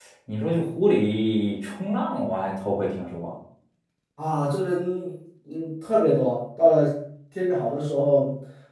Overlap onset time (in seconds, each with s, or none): none